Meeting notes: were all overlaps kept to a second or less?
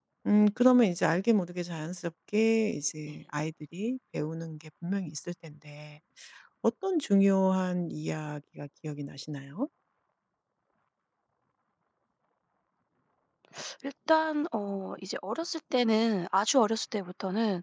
Yes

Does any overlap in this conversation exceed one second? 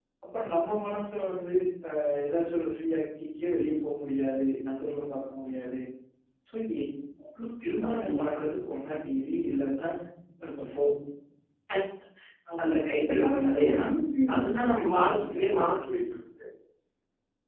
Yes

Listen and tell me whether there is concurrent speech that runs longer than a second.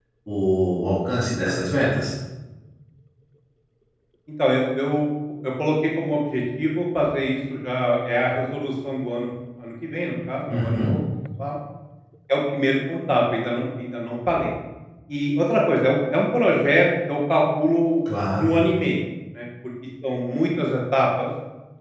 No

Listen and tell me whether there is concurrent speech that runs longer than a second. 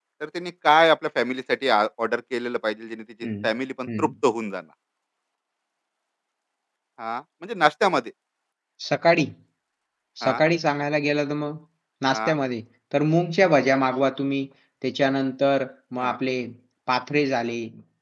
No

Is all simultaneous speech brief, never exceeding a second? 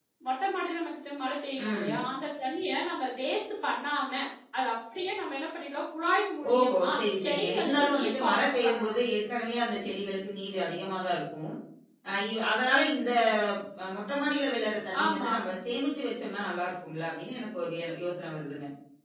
No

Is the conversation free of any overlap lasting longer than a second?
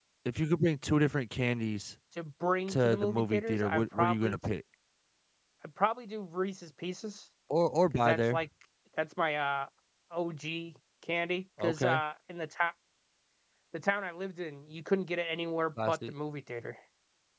No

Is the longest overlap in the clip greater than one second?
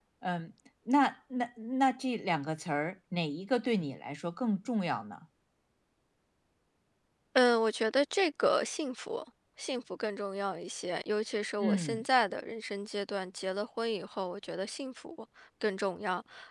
No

